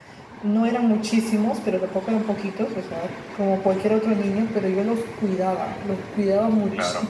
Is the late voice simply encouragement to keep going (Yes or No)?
Yes